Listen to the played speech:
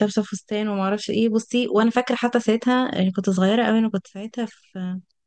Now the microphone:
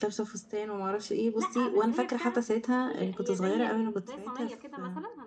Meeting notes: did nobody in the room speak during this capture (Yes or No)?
No